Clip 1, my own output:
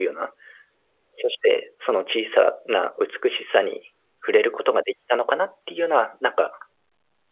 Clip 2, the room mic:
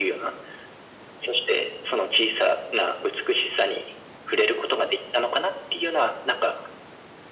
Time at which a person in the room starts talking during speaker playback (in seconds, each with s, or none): none